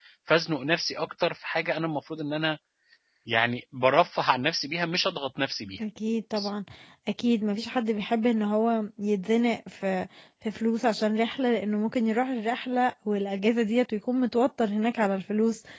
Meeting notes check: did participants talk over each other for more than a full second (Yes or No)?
No